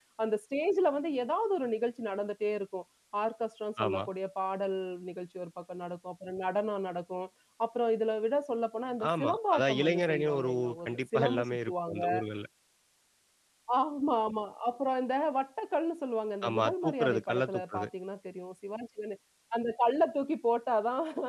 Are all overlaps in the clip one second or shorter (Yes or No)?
No